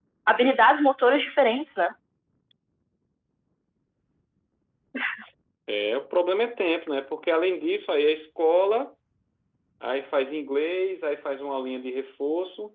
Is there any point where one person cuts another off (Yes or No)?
No